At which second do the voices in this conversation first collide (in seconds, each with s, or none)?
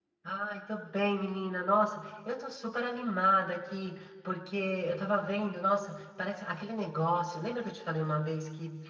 none